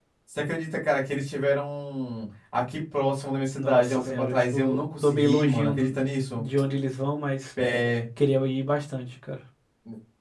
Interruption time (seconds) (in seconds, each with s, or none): 3.6 s